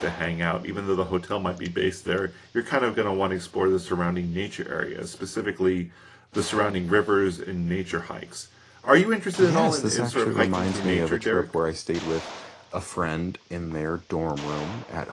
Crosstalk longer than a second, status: present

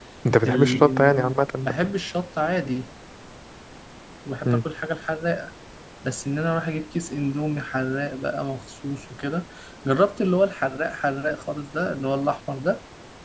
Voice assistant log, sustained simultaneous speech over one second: present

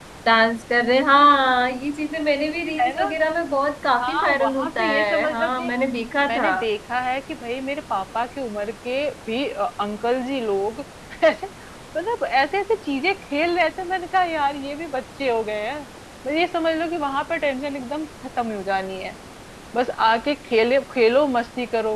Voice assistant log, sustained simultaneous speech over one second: present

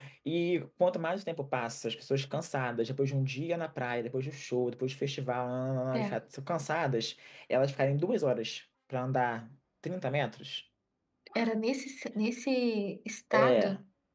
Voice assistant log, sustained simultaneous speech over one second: none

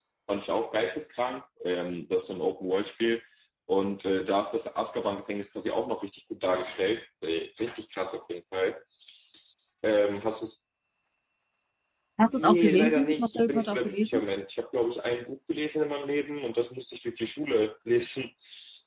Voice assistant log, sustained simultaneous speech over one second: present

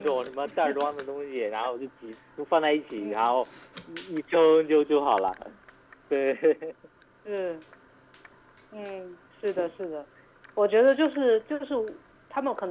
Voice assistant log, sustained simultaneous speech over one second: none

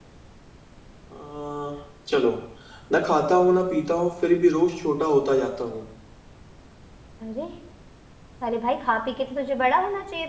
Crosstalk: none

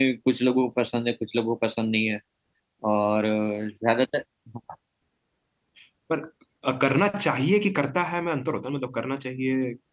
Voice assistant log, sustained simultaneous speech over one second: none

